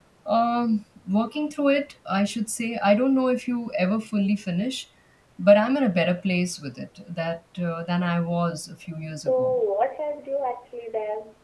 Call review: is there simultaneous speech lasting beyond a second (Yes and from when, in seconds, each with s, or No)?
No